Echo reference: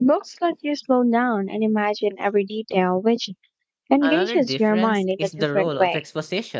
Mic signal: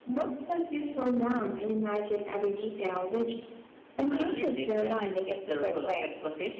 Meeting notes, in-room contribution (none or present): none